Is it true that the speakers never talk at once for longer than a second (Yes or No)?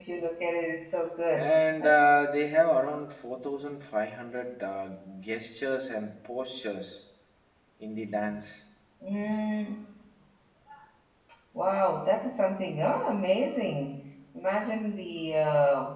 Yes